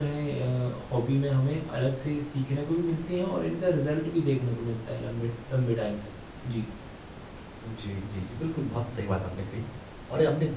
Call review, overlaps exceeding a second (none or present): none